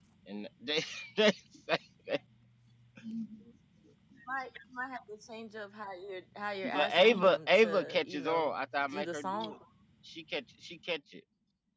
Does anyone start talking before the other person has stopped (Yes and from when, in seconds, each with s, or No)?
Yes, from 6.6 s